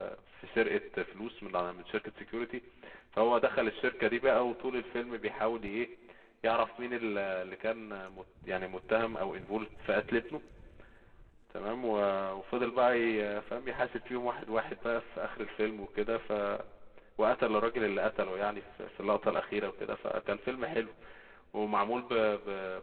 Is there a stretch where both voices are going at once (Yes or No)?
No